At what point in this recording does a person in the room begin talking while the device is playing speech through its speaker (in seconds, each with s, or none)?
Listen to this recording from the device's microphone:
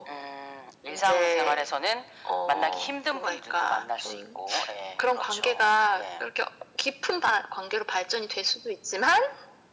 none